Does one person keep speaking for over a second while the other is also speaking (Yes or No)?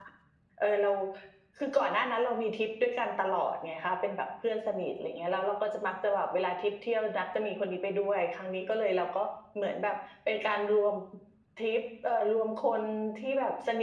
No